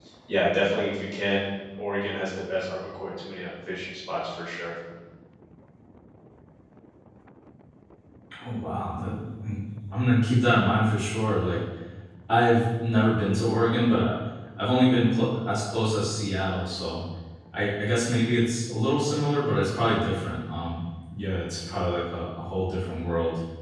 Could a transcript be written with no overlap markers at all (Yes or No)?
Yes